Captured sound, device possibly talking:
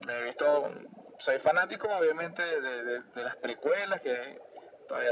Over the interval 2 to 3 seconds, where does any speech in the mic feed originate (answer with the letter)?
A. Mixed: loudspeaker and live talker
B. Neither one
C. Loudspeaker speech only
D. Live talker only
C